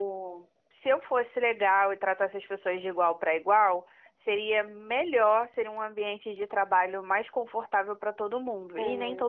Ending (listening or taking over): taking over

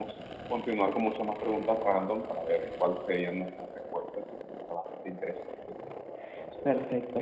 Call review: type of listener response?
taking over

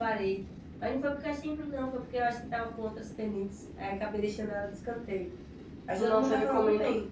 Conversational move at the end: taking over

